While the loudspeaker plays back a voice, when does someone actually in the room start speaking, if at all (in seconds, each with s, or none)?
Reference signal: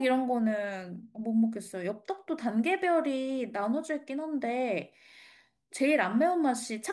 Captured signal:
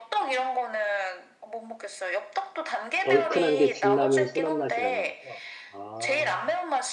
3.0 s